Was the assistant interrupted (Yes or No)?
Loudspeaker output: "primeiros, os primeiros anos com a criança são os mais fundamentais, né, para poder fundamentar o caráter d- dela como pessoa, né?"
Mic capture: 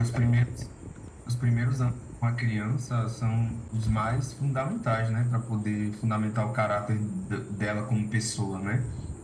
No